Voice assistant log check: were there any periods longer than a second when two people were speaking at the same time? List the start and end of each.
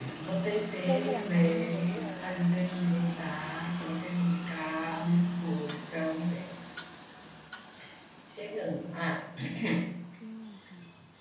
0.9-2.3

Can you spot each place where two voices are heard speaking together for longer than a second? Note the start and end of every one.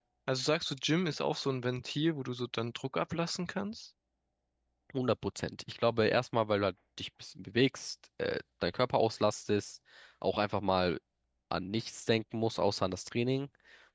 none

